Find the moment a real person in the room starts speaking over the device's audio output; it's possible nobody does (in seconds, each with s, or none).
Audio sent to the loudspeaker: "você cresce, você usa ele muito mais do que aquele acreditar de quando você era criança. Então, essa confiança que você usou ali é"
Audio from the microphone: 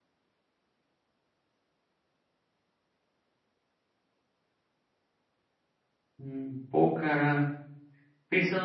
6.2 s